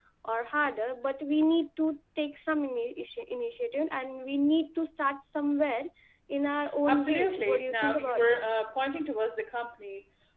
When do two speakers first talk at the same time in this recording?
6.8 s

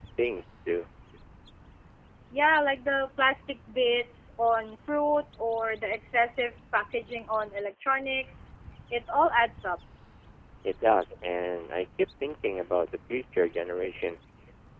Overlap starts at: none

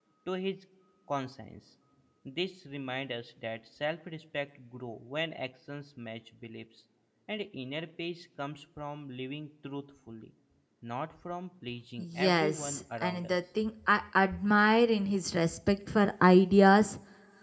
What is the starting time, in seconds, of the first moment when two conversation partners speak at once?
12.0 s

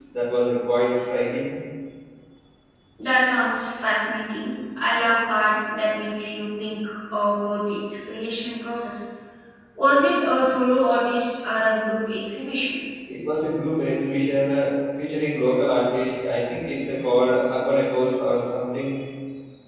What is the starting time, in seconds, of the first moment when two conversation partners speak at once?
none

